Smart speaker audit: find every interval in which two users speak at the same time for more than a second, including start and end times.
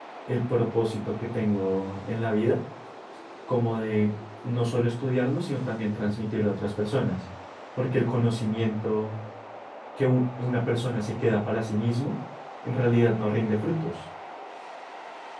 none

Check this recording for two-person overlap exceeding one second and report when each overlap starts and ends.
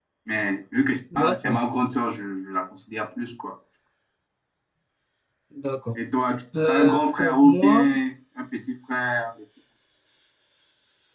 6.7-7.9

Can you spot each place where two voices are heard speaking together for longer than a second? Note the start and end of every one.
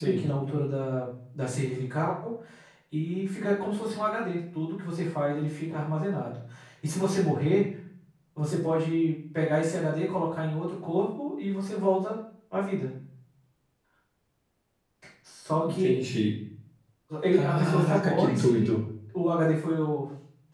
17.3-18.7

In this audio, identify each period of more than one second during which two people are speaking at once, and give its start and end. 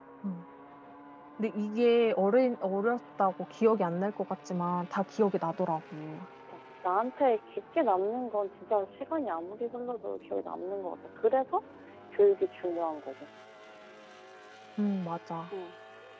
none

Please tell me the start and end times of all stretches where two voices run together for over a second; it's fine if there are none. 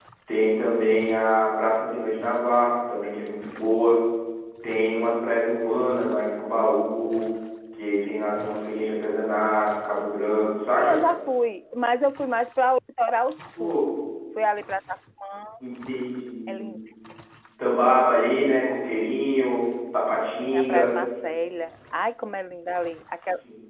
none

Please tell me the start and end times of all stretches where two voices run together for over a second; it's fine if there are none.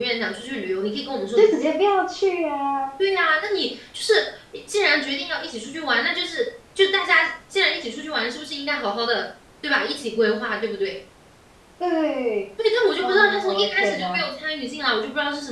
13.0-14.2

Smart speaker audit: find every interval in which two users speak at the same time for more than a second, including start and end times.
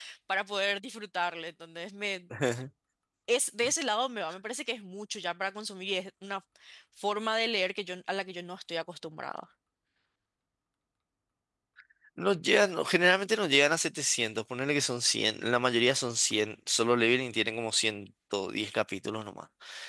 none

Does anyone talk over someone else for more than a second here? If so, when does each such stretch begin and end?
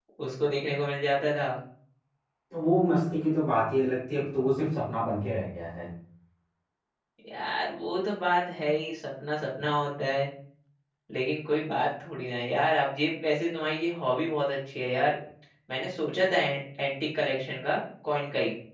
none

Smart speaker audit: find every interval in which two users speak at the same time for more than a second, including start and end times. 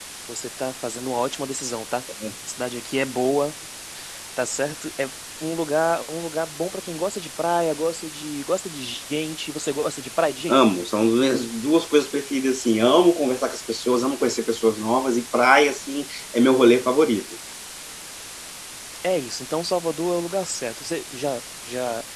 none

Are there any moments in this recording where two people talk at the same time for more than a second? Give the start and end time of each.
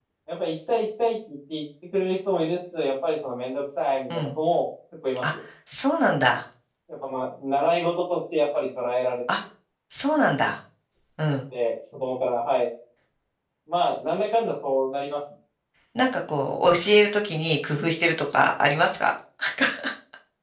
none

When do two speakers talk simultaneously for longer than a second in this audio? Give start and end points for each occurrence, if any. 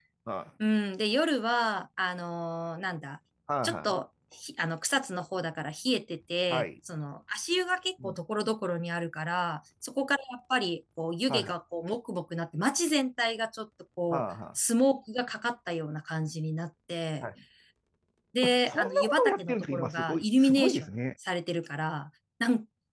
18.7-20.9

